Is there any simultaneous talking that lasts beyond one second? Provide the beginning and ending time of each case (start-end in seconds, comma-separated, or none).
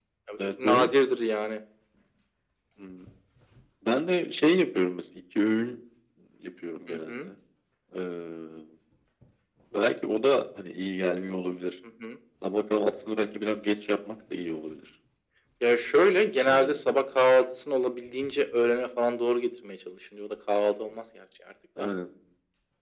none